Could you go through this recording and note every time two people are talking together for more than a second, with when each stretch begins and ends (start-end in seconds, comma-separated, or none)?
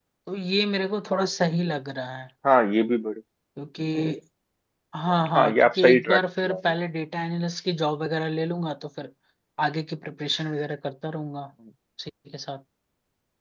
5.4-6.6